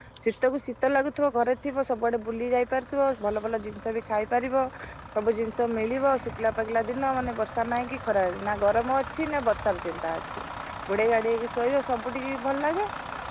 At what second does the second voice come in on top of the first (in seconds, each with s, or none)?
none